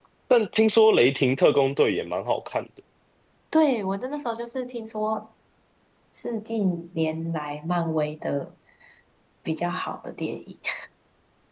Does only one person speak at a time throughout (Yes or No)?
Yes